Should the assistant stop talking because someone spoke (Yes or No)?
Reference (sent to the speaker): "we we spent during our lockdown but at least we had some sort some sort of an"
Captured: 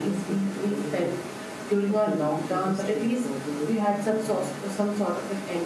Yes